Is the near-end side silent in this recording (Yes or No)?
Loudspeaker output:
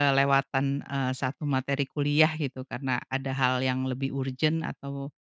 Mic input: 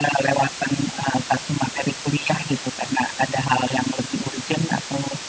Yes